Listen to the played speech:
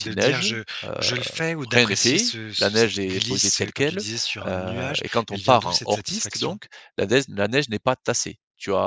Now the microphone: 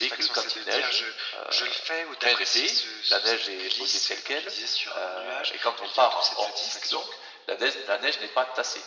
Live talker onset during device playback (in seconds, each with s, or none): none